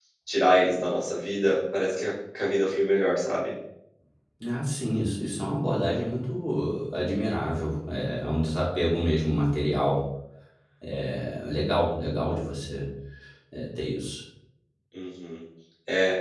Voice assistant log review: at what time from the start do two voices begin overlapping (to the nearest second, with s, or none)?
none